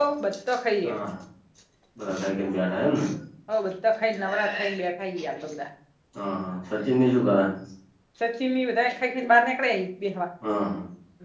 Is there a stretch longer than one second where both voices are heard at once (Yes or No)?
No